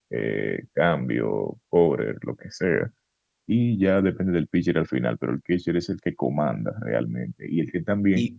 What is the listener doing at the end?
listening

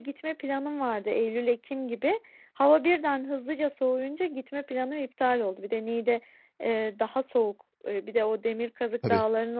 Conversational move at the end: listening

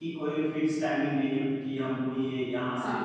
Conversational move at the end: listening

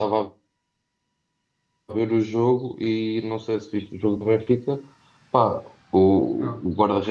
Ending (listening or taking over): listening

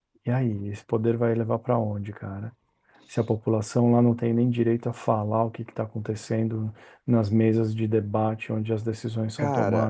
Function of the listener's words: taking over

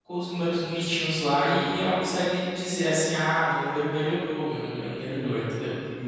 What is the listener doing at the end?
taking over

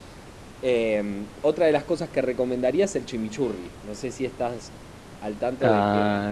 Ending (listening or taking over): taking over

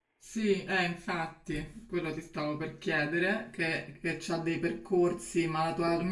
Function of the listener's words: listening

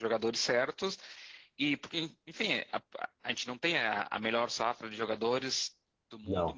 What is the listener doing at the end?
listening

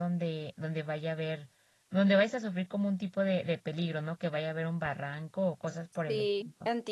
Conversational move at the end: taking over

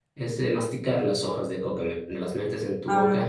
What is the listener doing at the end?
listening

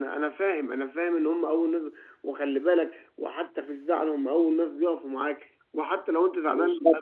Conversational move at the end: listening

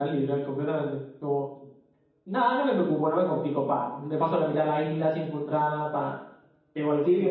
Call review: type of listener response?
taking over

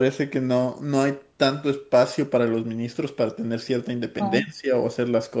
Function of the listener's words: listening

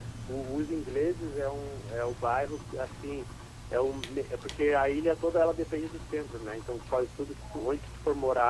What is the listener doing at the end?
listening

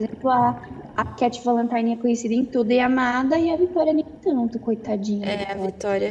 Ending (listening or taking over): taking over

